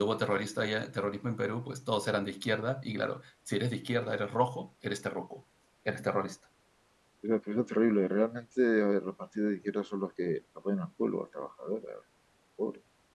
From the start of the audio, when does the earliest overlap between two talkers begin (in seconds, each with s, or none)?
none